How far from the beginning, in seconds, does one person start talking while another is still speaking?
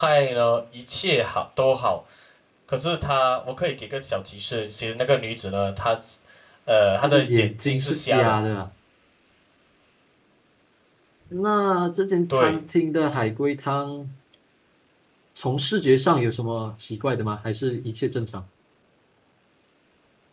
7 s

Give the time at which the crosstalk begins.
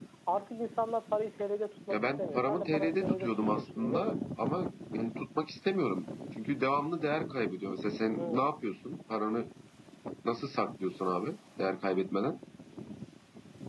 2 s

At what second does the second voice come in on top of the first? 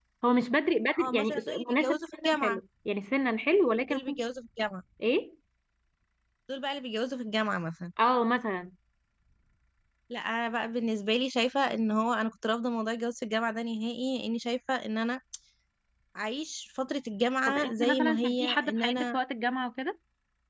1 s

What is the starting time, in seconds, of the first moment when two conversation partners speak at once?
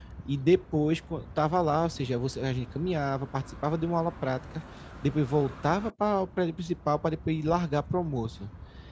none

